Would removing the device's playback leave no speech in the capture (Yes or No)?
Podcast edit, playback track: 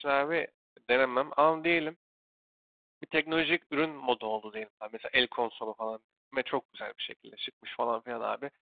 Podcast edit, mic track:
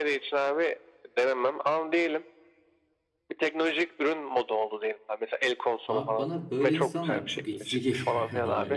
No